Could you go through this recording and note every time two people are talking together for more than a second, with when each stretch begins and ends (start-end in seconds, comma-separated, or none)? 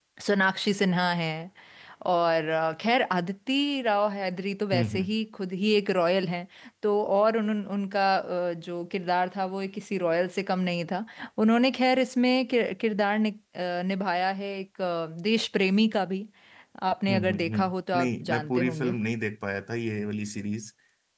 17.1-19.0